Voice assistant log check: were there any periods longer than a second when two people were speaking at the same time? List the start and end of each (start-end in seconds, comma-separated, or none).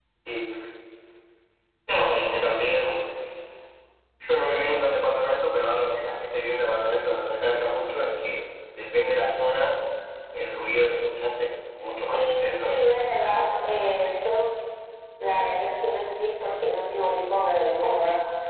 12.1-13.5